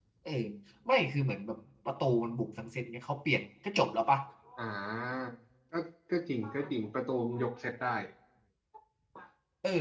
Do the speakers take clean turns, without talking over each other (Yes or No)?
Yes